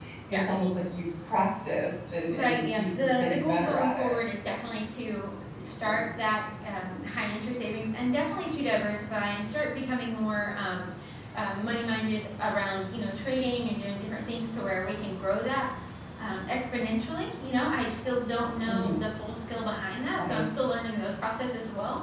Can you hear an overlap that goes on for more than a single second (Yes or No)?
Yes